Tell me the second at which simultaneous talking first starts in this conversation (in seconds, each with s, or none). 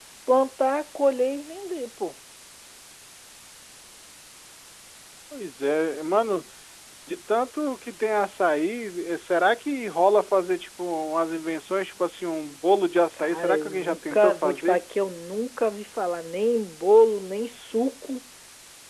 13.2 s